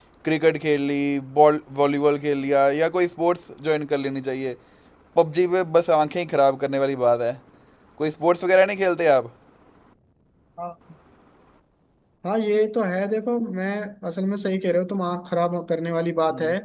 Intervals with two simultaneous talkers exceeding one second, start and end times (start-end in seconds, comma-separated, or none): none